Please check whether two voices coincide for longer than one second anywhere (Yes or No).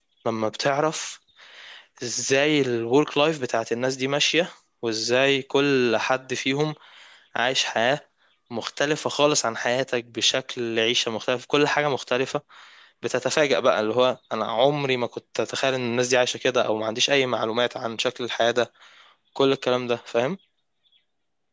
No